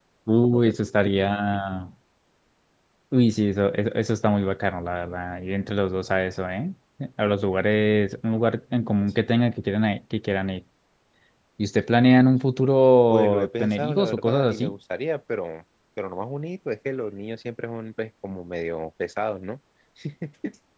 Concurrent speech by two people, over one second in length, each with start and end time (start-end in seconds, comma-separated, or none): 13.1-14.7